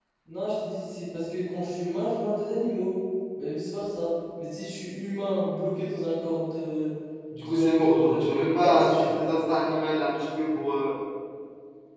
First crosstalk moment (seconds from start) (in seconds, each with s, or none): 7.4 s